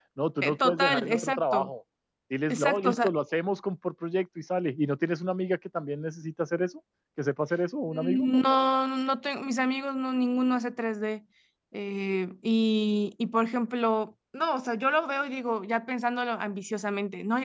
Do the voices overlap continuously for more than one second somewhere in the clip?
Yes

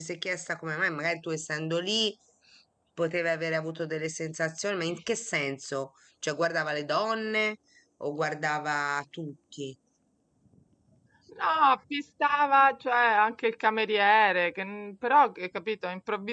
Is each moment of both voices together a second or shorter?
Yes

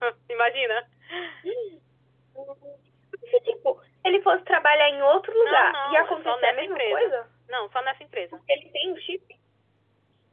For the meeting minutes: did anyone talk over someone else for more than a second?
Yes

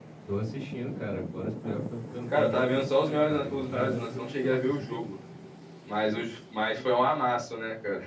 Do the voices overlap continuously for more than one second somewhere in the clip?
Yes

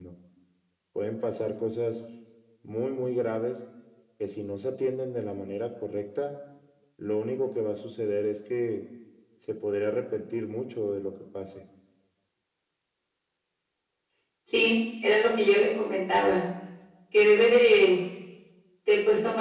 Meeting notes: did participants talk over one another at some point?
No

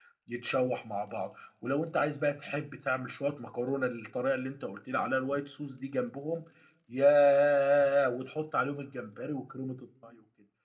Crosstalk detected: No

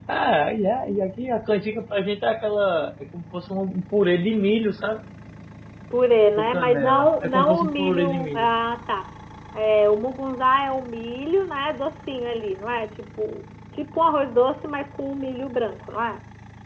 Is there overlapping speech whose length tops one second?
Yes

